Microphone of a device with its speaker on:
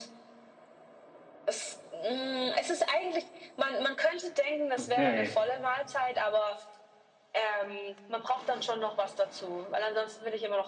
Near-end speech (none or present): present